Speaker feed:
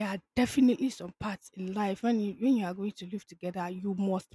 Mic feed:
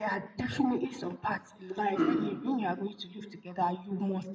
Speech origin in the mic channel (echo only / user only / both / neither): both